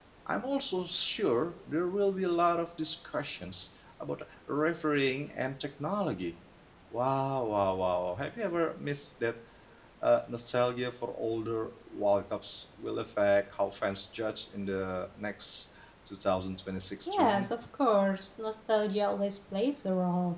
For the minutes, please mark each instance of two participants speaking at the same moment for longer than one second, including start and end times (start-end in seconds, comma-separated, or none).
none